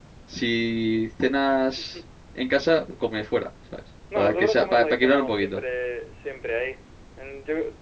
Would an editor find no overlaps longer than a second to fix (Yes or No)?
No